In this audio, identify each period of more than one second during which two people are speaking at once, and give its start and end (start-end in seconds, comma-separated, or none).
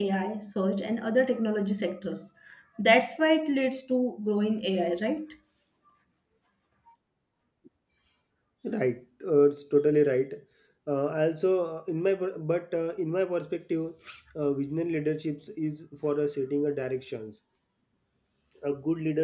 none